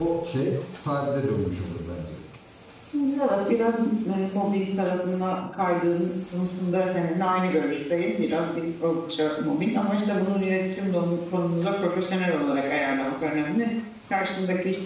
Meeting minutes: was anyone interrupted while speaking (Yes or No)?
No